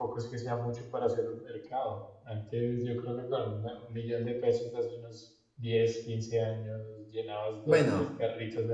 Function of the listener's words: listening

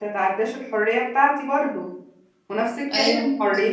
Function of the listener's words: listening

